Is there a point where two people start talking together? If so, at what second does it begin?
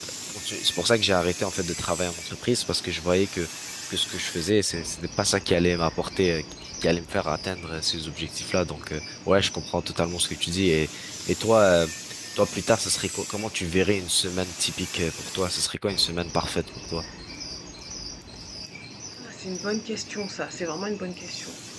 none

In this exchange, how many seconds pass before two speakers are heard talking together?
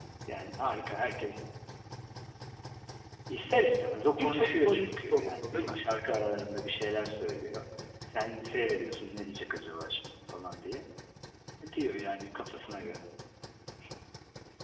4.2 s

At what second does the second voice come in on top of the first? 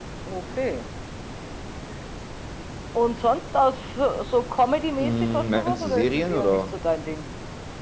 5.0 s

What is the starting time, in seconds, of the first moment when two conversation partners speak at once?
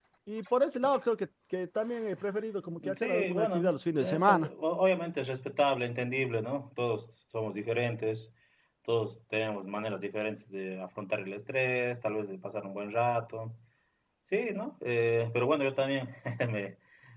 2.8 s

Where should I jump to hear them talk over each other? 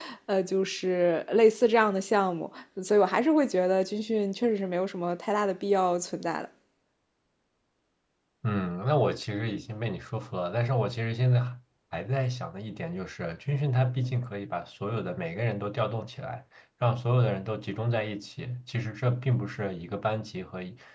none

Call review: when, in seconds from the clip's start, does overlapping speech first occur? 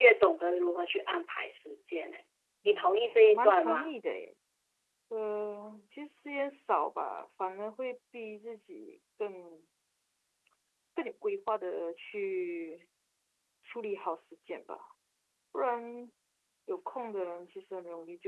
2.6 s

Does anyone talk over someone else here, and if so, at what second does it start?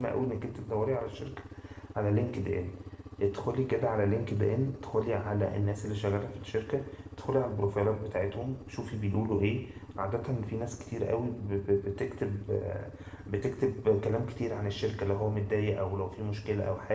none

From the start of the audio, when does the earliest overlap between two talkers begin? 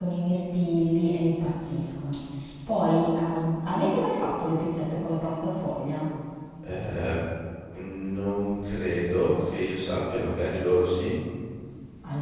none

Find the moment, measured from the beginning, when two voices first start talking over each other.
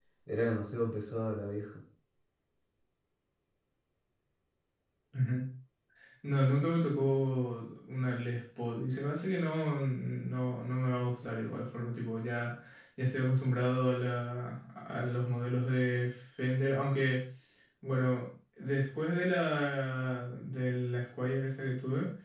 none

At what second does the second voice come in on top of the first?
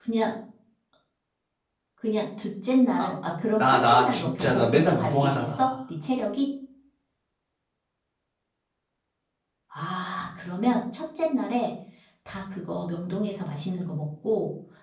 3.6 s

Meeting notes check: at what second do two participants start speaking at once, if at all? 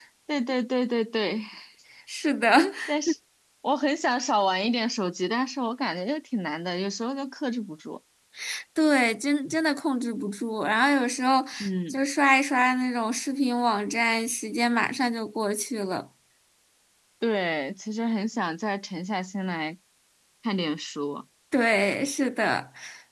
none

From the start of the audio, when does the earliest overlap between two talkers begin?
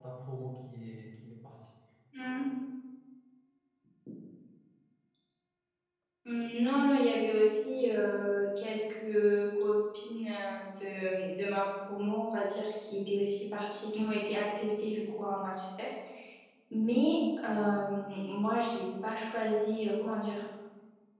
none

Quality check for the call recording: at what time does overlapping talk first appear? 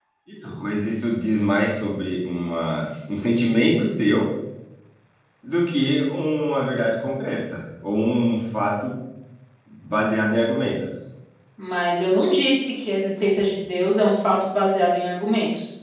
none

